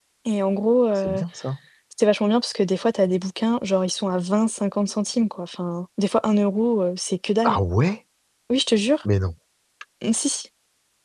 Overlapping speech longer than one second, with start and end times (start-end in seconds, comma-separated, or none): none